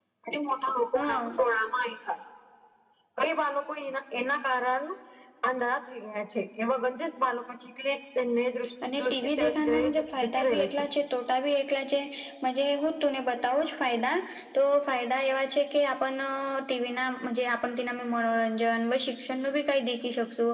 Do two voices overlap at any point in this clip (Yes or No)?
Yes